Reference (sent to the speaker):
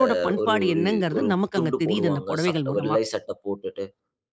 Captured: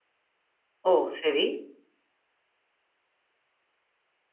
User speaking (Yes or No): Yes